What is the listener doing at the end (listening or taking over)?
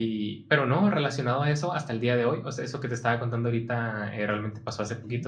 listening